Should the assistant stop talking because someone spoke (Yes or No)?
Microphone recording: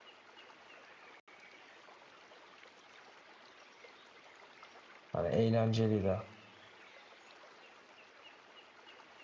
Yes